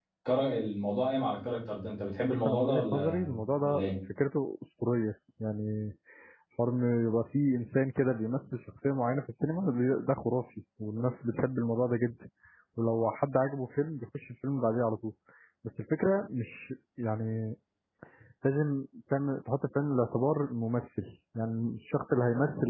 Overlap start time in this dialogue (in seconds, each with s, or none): 2.5 s